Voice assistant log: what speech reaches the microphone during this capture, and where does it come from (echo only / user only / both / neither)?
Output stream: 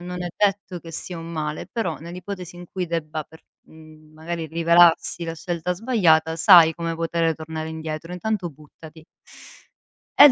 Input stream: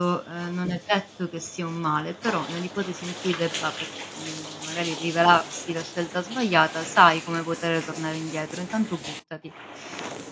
echo only